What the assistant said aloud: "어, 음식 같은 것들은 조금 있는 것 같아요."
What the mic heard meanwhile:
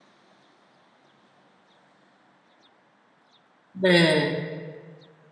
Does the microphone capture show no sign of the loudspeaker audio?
Yes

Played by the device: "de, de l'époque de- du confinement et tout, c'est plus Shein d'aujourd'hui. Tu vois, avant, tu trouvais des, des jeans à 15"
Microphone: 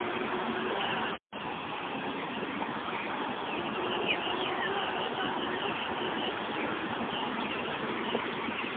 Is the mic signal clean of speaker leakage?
Yes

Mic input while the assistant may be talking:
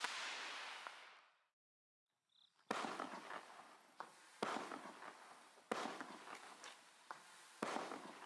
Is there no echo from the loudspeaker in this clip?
Yes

